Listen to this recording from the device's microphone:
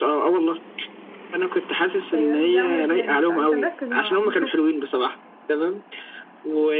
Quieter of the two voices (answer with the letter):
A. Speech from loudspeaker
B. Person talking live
B